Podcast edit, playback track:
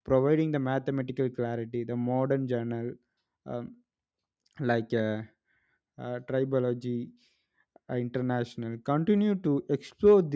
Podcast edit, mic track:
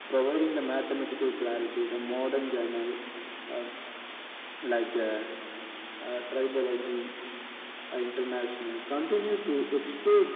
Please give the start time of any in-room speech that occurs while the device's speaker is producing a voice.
none

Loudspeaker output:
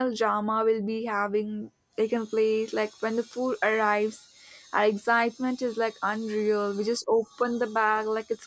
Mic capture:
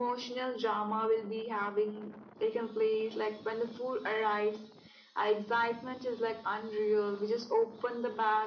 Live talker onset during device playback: none

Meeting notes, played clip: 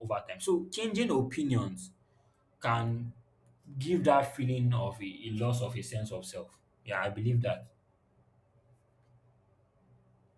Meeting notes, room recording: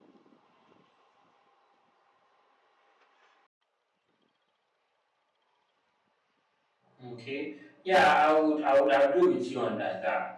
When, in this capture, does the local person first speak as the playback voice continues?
6.9 s

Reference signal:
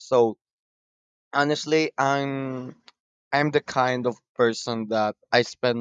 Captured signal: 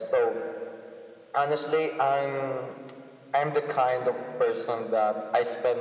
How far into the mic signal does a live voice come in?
none

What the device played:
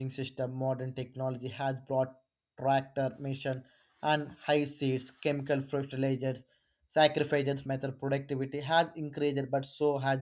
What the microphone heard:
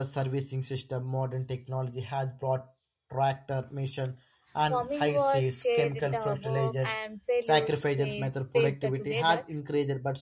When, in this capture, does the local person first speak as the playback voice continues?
4.6 s

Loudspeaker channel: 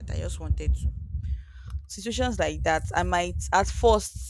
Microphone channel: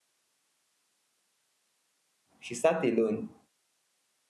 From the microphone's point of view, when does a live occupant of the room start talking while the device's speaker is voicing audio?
2.4 s

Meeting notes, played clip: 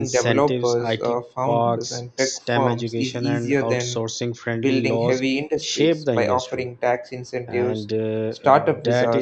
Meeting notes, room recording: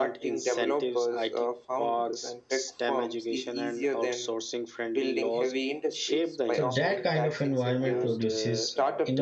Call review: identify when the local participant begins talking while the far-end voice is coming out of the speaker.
6.5 s

